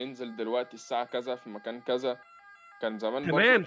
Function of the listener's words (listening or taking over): taking over